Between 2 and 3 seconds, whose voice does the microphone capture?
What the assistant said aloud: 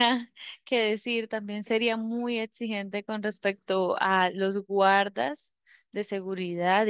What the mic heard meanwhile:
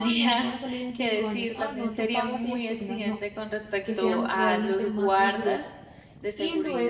both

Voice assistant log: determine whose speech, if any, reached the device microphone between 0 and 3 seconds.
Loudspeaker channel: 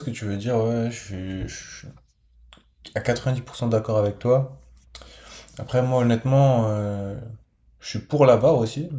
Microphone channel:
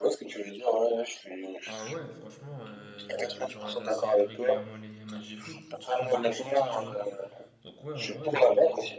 both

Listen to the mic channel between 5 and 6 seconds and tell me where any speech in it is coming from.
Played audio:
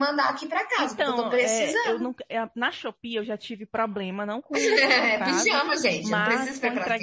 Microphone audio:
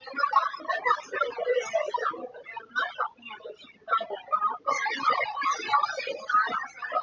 echo only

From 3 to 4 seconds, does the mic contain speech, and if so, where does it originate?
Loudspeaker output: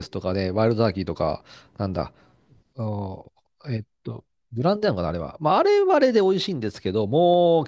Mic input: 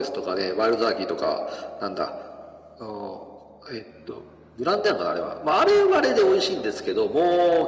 echo only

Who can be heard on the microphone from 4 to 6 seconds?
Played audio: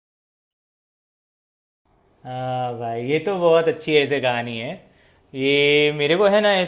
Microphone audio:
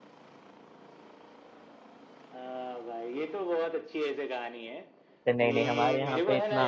both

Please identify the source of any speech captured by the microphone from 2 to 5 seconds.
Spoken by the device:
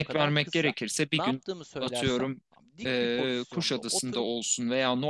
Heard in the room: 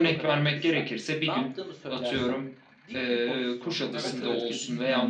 both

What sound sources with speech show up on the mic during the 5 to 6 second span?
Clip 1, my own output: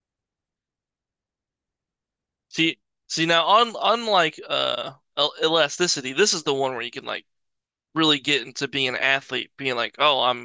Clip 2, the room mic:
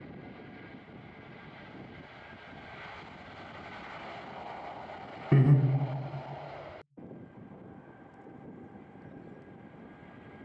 user only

